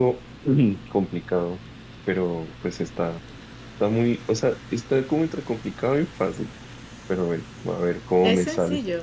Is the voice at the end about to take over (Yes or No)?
Yes